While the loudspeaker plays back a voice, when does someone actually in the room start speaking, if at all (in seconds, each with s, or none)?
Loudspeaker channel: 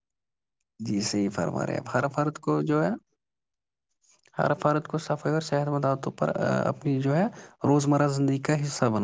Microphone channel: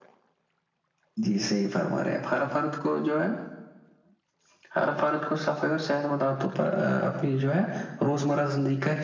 none